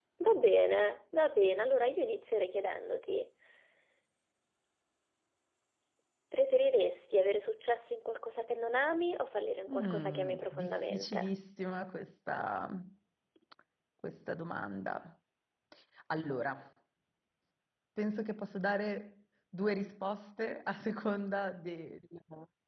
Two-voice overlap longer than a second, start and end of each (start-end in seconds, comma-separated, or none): 9.7-11.3